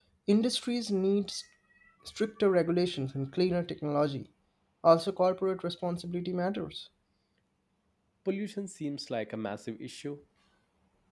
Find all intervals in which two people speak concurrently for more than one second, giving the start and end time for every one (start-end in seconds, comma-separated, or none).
none